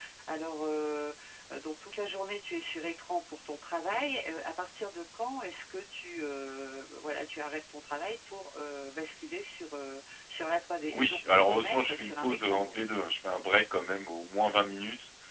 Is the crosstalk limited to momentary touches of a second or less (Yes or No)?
No